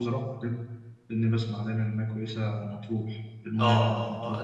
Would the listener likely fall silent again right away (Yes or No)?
No